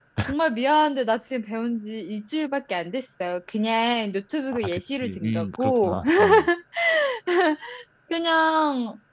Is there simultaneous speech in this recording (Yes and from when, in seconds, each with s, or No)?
Yes, from 4.5 s